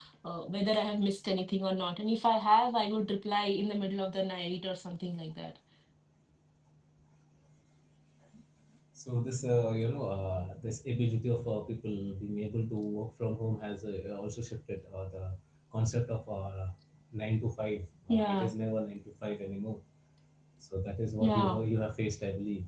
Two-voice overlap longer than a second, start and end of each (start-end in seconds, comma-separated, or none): none